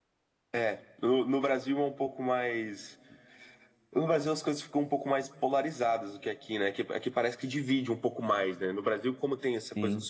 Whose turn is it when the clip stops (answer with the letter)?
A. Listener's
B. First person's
B